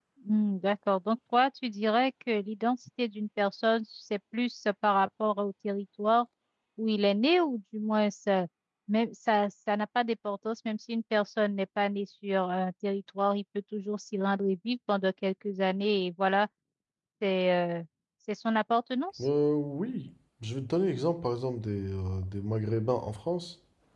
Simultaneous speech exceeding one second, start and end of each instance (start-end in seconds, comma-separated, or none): none